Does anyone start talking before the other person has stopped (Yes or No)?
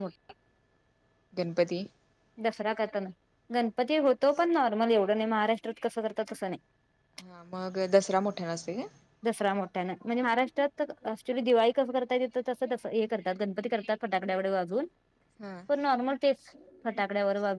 No